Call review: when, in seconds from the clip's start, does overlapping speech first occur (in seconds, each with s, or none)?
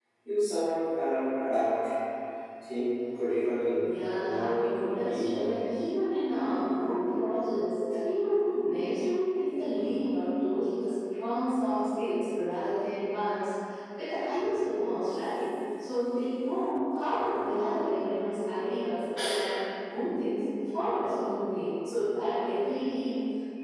3.8 s